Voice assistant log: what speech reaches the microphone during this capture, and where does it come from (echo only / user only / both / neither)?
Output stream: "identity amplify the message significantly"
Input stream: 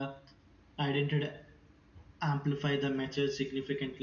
echo only